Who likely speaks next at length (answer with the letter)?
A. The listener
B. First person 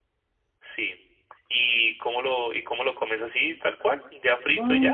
A